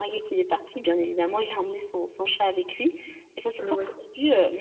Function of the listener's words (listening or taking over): listening